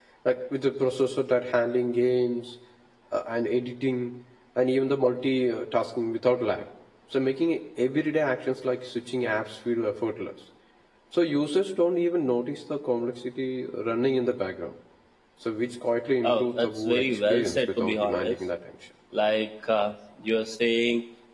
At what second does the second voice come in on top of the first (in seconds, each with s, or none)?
16.2 s